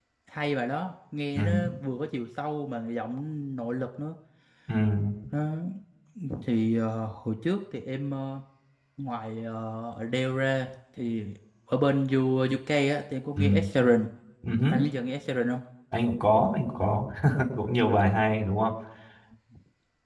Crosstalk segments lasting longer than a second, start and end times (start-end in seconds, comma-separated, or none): none